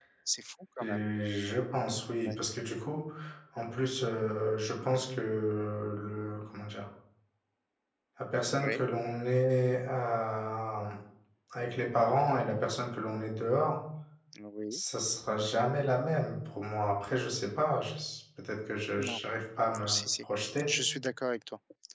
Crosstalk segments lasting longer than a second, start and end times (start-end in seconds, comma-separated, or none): none